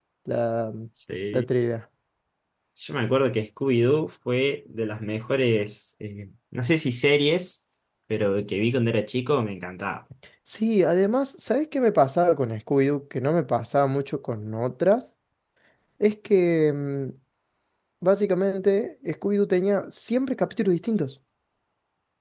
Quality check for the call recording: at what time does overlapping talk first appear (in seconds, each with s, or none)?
none